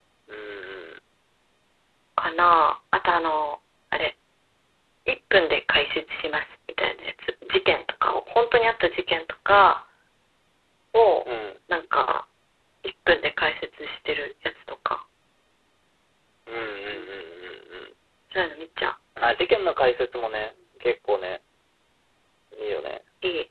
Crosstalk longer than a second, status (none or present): none